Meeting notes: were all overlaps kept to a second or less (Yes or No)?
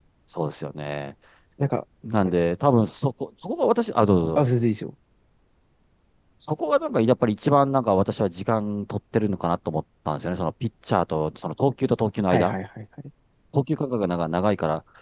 Yes